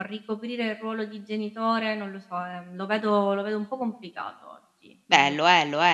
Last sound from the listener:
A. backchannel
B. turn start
B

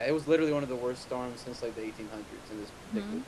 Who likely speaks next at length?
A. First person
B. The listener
B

